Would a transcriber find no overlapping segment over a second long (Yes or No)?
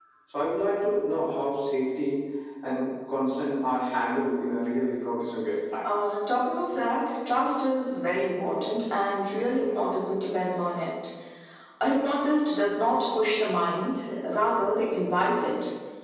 Yes